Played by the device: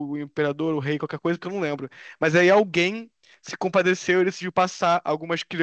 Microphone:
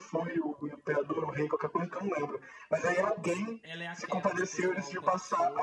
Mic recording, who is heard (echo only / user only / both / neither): both